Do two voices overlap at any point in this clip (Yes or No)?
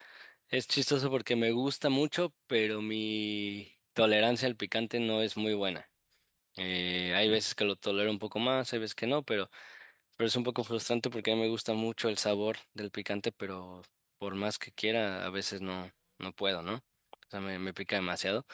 No